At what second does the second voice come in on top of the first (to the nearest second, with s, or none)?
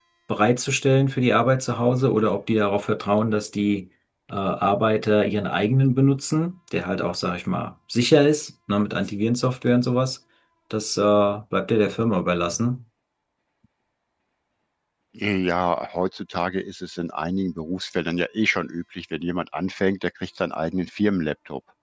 none